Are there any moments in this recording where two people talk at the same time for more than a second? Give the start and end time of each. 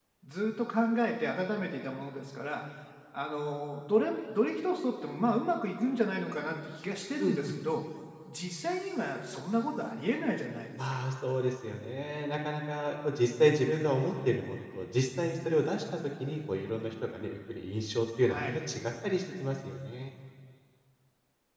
none

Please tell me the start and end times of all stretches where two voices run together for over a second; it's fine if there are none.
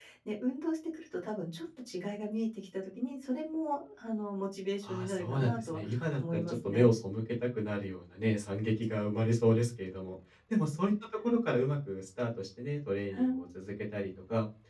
4.8-6.9

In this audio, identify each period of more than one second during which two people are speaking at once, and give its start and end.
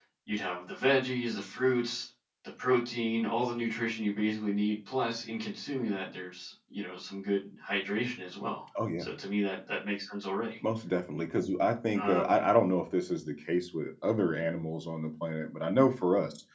none

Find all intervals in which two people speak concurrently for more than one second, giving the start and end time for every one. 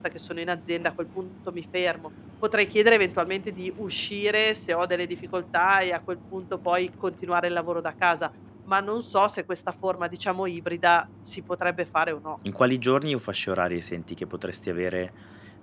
none

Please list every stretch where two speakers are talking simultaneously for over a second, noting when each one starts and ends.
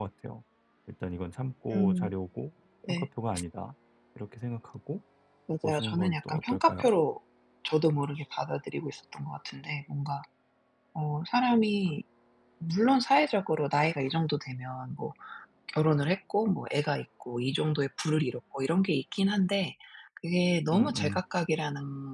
5.6-6.9

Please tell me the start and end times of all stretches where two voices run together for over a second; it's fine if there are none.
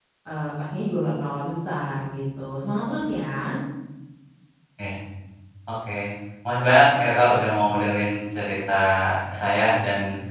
none

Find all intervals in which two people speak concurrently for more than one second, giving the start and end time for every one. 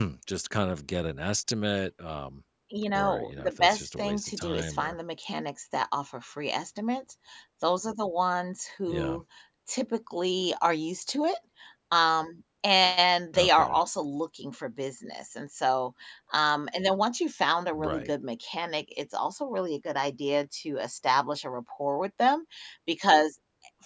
2.9-5.0

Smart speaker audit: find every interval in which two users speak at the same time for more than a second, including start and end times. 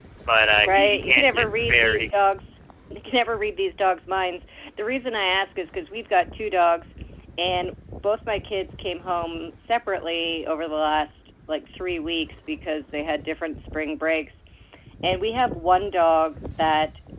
0.6-2.2

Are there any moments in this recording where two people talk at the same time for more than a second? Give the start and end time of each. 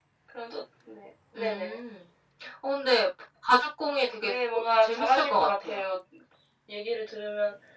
4.2-5.9

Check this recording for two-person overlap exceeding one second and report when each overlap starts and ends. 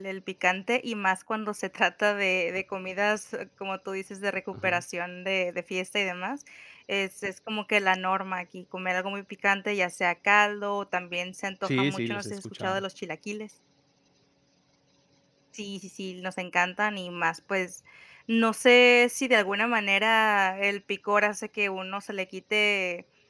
11.6-12.8

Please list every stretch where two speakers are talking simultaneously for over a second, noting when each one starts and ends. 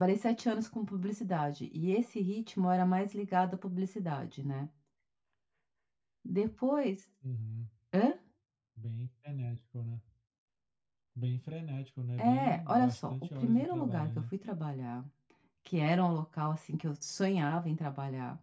12.2-14.1

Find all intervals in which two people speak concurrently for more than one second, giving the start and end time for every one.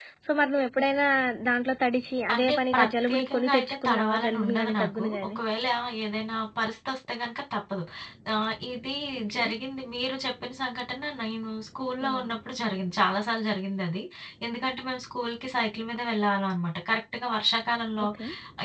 2.3-5.4

